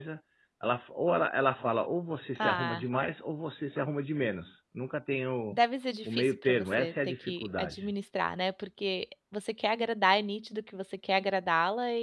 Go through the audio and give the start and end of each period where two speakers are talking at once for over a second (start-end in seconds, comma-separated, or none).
6.0-7.9